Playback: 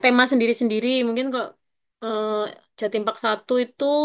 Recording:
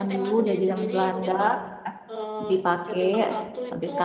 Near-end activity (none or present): present